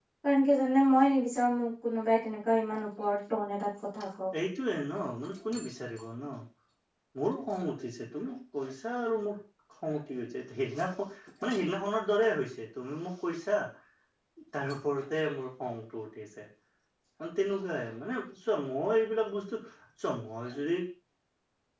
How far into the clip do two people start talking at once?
none

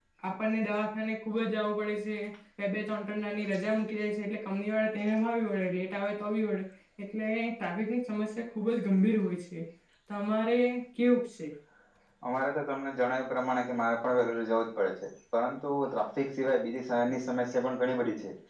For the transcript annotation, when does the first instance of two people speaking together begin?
none

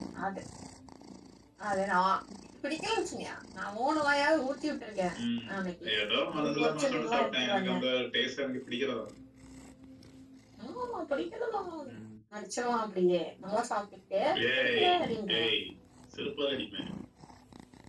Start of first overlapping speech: 6.4 s

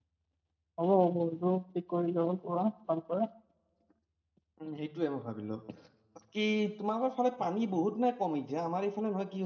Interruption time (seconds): none

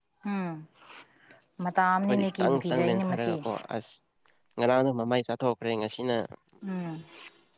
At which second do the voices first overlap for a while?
2.1 s

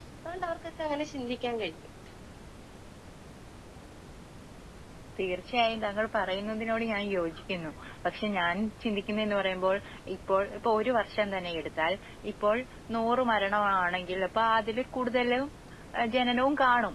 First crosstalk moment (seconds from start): none

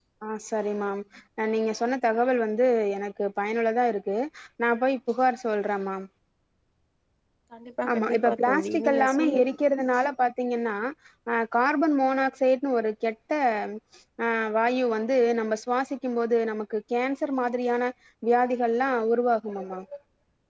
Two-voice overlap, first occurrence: 7.9 s

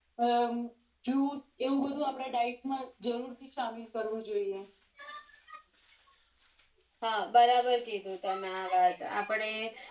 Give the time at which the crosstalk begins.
none

